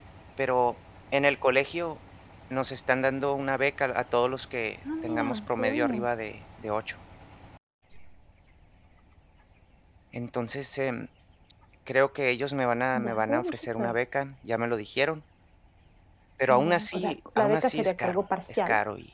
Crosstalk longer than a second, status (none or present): present